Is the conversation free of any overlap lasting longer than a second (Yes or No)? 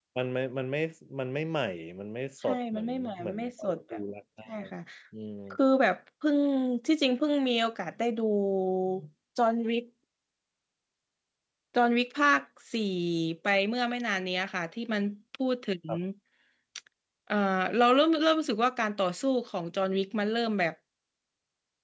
No